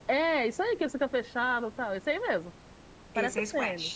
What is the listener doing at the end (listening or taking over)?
taking over